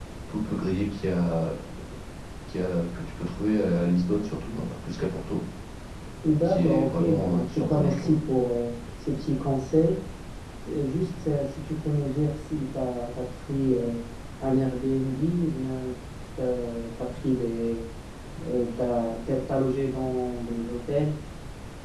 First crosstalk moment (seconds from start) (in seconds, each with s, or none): 6.4 s